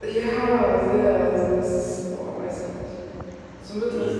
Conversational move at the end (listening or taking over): listening